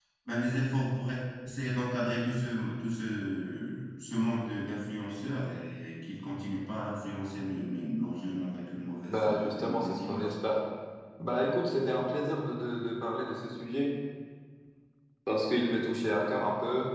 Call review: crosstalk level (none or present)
present